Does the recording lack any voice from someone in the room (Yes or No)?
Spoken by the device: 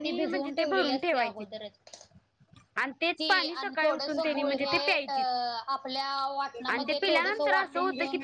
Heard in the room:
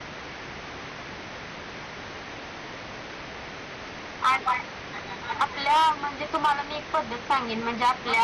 No